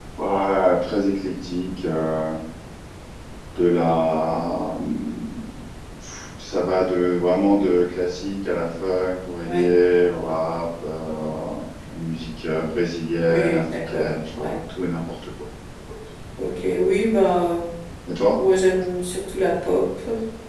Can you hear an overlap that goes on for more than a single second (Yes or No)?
Yes